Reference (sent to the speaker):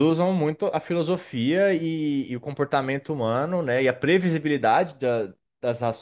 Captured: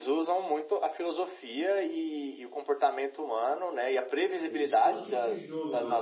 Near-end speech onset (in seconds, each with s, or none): 4.5 s